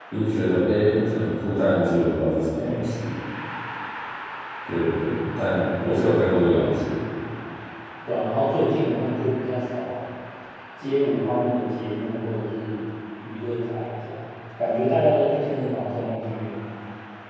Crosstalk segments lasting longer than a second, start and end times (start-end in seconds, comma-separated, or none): none